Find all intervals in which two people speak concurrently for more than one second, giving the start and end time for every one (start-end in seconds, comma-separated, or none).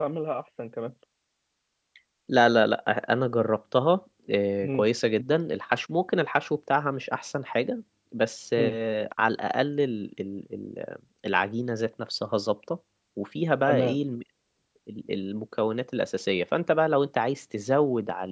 none